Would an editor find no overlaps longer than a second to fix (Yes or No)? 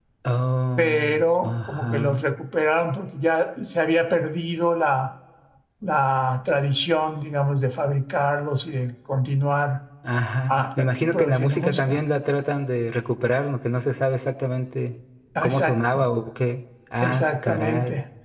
No